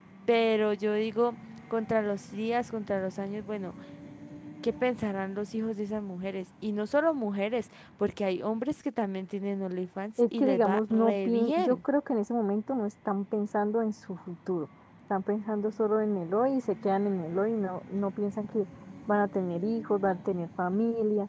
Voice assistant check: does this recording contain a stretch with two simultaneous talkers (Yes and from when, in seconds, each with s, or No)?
Yes, from 10.2 s